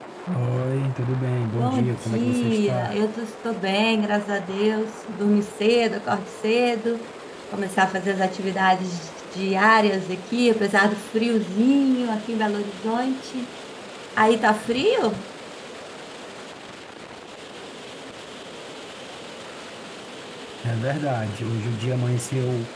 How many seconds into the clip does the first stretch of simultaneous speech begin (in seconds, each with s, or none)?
1.6 s